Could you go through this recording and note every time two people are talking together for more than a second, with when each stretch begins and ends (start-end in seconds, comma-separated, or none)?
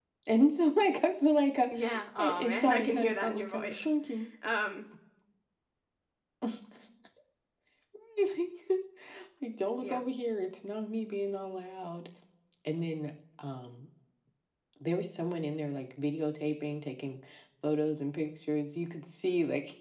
2.2-3.9